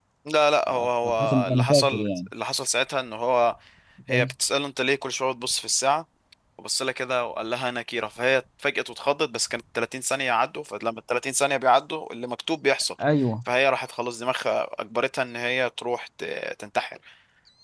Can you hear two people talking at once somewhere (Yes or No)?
Yes